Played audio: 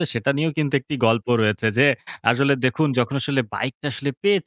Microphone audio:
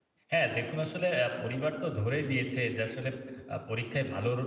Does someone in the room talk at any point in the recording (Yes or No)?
Yes